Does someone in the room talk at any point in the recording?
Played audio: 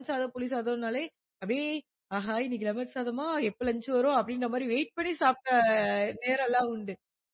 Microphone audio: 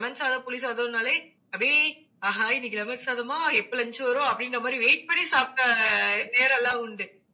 No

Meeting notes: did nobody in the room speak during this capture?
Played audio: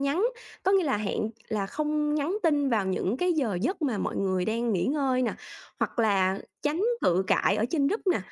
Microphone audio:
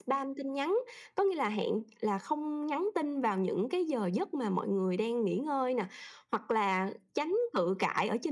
Yes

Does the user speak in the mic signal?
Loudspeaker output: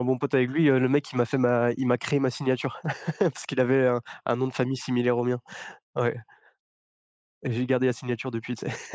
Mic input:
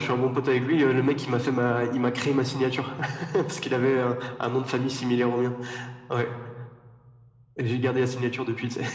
No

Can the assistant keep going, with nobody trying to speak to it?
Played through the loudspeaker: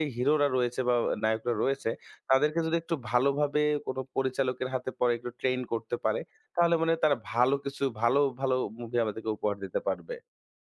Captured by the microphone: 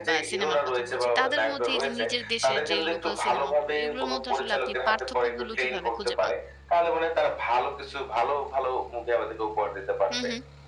No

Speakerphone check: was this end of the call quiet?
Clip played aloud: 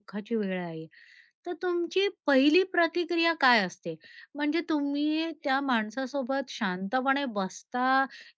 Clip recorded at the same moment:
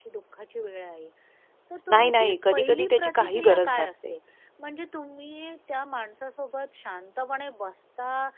No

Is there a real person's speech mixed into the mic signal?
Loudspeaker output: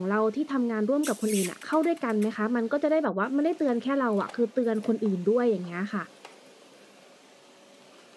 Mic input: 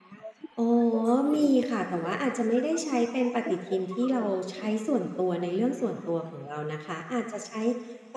Yes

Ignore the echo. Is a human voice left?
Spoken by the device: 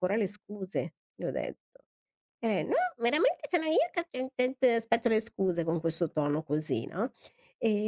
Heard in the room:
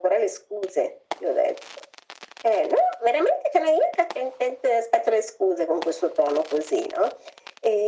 No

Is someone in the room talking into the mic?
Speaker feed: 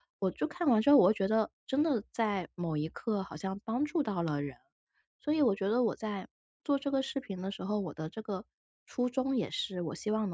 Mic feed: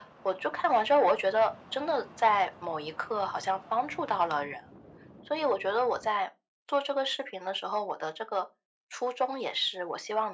No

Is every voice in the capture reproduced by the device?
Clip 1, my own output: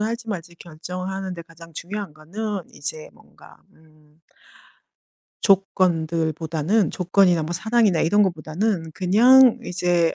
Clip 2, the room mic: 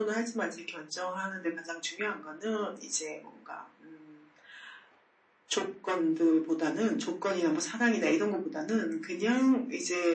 Yes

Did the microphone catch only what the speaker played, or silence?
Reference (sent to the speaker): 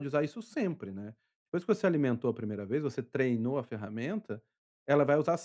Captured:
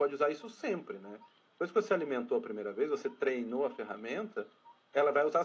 Yes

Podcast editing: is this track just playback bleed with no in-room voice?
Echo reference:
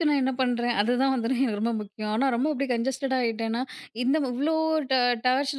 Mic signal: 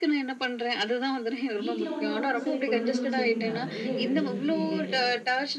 No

